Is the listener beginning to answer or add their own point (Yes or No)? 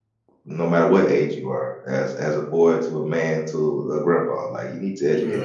Yes